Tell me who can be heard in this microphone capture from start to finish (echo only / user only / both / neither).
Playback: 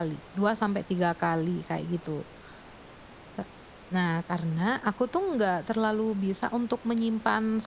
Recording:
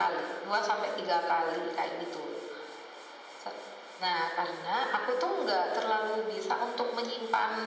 echo only